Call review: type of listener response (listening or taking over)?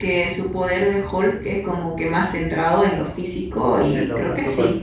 taking over